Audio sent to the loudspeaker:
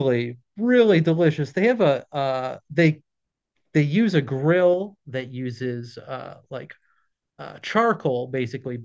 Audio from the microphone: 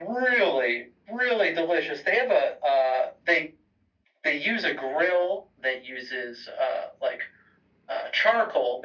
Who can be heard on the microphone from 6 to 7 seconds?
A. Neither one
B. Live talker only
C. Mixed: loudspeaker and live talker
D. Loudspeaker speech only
D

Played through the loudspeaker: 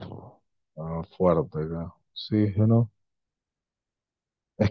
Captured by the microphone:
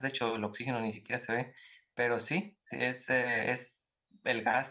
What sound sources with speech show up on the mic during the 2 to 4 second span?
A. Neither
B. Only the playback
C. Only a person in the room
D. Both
C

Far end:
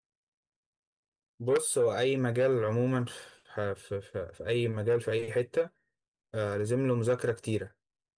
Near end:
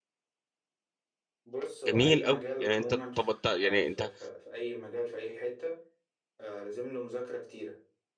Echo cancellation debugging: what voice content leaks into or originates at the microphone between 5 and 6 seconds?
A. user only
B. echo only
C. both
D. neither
B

